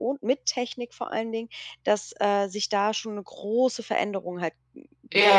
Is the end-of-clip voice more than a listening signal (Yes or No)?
Yes